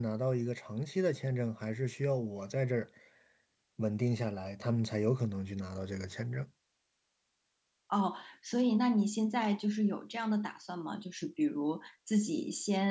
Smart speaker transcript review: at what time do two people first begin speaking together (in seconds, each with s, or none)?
none